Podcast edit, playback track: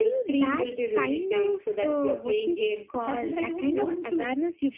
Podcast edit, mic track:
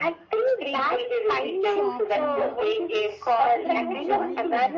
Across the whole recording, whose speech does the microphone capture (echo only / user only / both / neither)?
both